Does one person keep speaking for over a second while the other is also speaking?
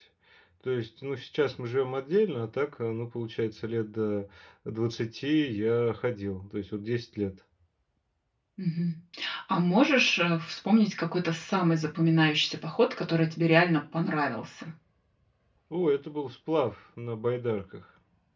No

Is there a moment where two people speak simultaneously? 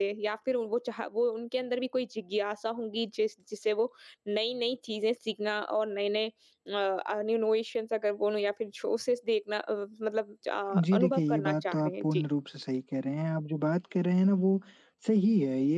Yes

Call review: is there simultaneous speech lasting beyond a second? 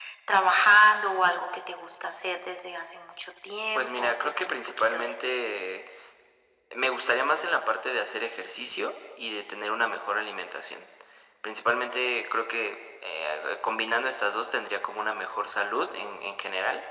Yes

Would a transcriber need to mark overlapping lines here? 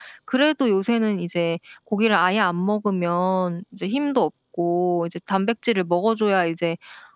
No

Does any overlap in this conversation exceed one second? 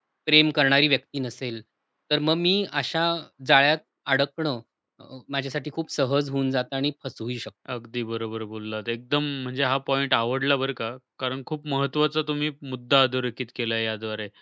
No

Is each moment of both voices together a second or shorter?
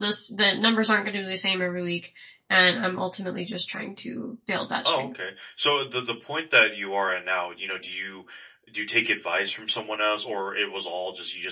Yes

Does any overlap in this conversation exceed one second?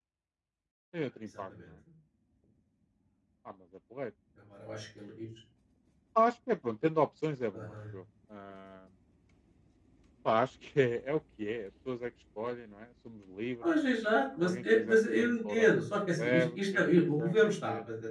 Yes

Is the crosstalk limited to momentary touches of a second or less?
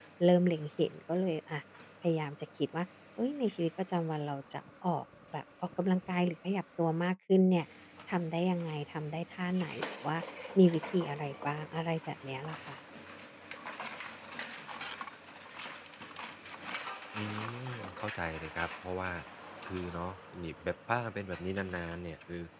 Yes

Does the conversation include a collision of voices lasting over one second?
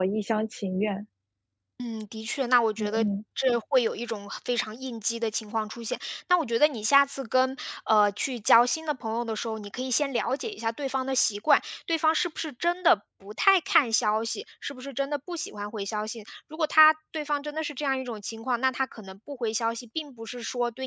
No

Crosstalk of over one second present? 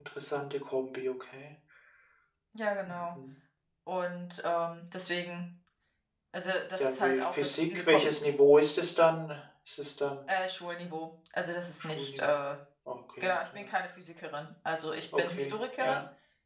Yes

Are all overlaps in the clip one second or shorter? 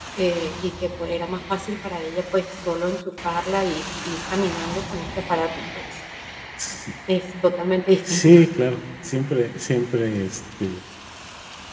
Yes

